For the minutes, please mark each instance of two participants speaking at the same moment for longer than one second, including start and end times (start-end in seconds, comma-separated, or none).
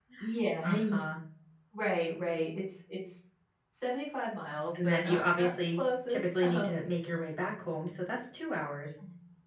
4.7-6.8